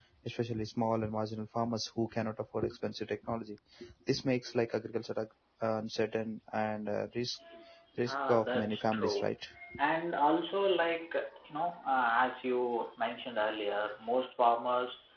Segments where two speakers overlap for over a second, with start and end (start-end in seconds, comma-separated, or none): 8.1-9.3